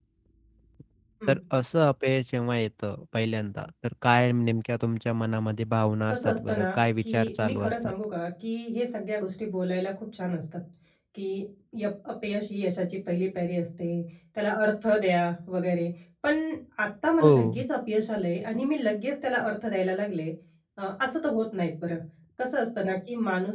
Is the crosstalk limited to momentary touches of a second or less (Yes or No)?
No